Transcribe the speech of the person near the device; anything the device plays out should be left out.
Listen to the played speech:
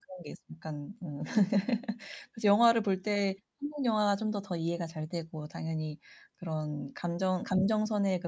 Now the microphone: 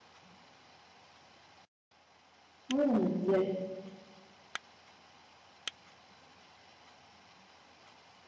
음 네.

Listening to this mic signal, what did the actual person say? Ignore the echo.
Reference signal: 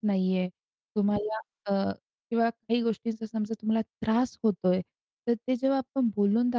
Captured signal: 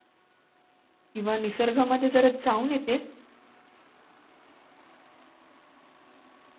किंवा निसर्गामध्ये जरा जाऊन येते,

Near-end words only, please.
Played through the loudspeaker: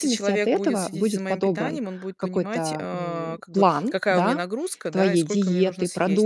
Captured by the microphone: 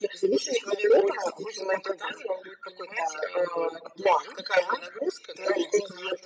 none

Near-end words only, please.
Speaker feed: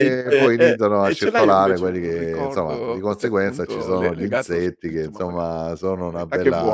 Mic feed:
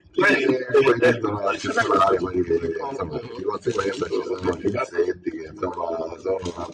none

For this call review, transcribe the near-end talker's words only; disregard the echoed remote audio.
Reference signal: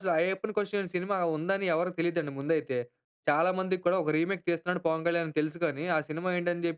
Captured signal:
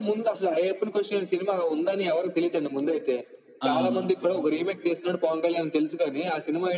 అవును.

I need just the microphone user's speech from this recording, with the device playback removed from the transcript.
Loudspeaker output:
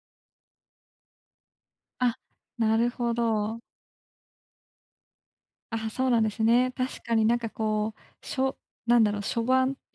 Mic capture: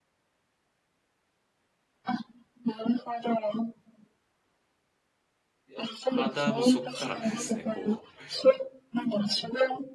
いや、ただもうそっからですね、こう、

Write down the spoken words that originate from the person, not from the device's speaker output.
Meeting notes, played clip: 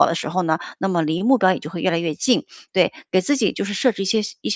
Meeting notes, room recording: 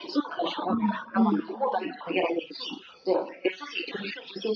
嗯嗯。

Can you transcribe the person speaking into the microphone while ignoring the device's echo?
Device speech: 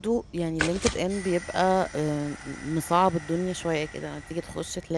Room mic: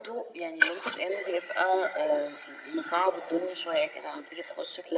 none

